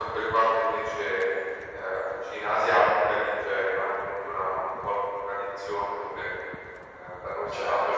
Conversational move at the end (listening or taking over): listening